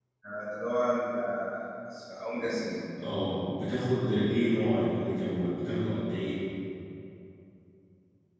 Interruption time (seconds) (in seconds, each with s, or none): none